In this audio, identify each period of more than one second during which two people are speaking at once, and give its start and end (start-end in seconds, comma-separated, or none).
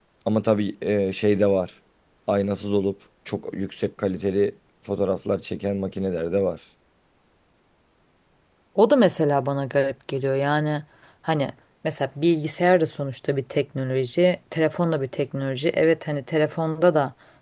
none